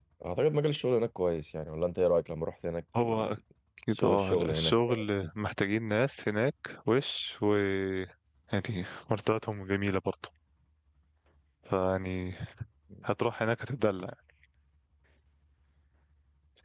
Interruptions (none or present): present